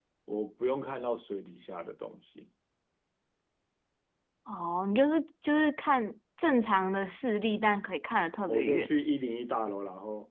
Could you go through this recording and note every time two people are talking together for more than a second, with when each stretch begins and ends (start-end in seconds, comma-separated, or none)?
none